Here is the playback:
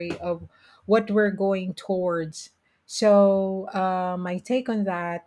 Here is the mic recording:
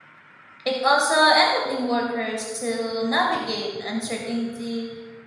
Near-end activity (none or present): present